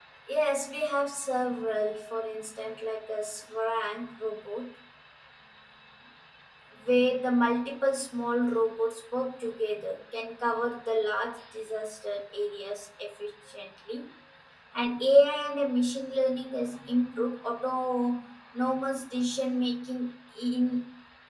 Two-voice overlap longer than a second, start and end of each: none

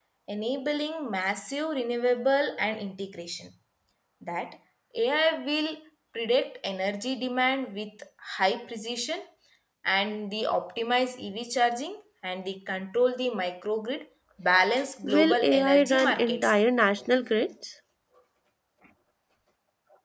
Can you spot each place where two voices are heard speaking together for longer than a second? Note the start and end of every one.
15.0-16.5

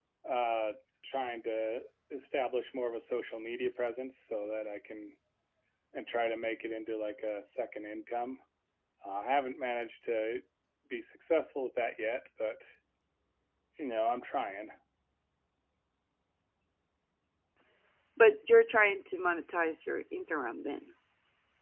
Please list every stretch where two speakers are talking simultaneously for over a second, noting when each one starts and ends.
none

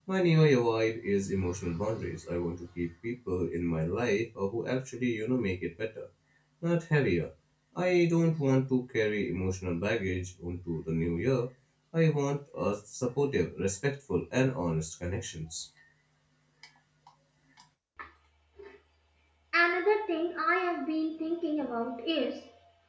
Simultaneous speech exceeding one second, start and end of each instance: none

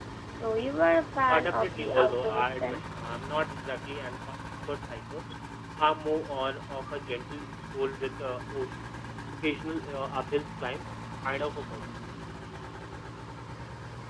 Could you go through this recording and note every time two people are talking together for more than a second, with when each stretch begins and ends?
1.3-2.8

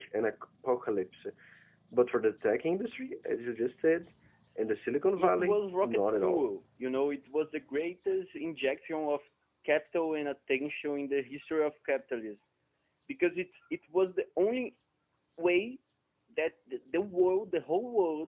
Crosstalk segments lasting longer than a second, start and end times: 5.2-6.5

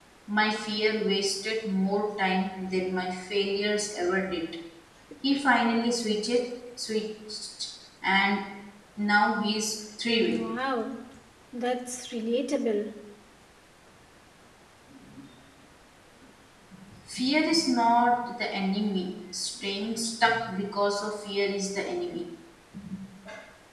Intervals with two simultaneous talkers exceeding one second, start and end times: none

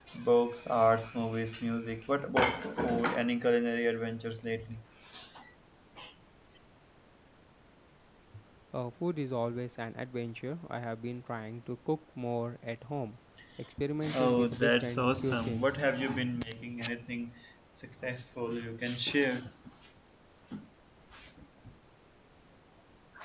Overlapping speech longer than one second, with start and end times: 14.1-15.6

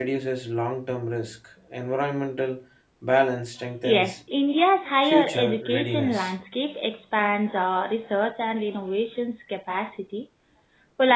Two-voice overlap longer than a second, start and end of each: 5.0-6.3

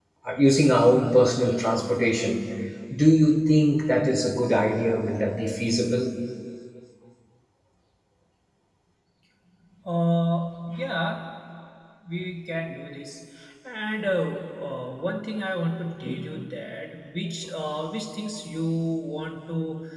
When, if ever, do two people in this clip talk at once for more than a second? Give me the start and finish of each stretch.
none

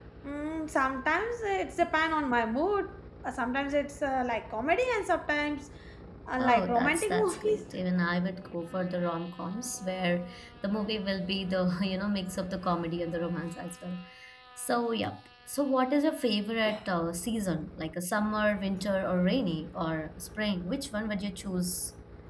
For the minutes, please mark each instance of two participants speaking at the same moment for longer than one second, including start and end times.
6.4-7.6

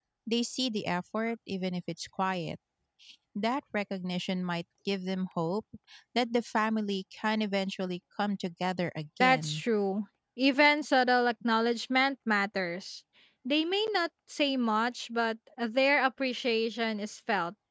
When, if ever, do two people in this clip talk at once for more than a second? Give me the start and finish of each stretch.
none

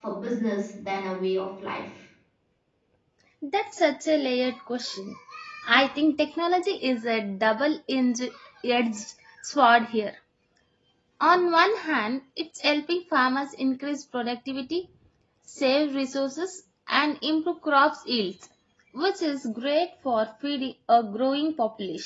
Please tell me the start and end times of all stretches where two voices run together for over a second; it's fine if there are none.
none

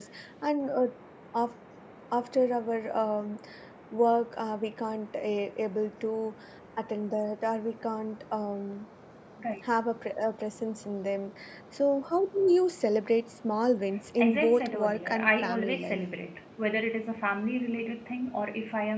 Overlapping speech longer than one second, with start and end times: 14.2-16.0

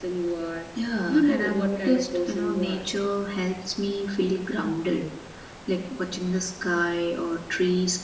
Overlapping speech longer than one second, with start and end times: 1.1-2.9

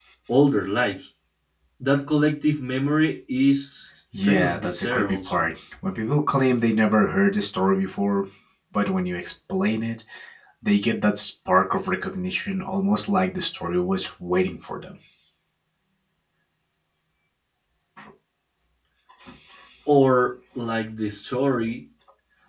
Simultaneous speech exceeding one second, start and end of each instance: 4.2-5.4

